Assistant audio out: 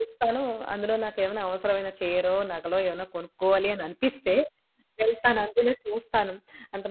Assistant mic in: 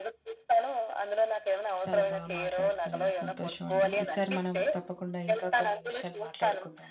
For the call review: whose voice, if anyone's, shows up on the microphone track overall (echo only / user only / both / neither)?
both